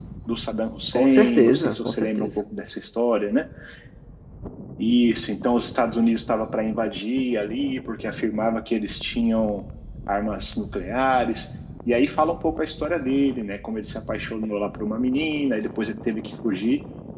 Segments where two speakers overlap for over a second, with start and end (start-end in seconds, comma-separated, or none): 0.9-2.3